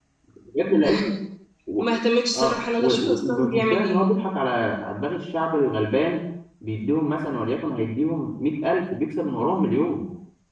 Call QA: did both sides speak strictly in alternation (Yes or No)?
No